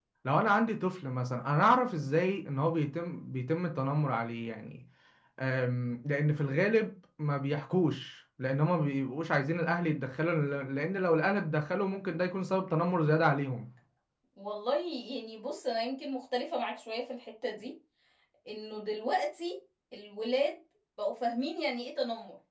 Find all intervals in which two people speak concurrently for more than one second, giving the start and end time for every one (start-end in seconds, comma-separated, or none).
none